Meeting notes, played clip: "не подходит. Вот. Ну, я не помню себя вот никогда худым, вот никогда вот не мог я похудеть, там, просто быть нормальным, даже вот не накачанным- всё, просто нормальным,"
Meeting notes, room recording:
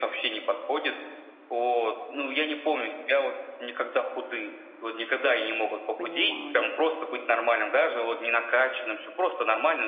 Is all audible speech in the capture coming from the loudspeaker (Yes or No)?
No